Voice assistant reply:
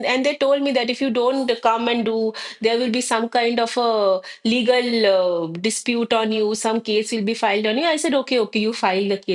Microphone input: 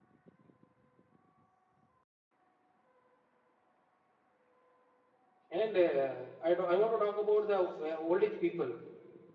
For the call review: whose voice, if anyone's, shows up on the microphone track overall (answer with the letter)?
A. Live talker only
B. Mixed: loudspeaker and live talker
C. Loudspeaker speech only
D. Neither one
A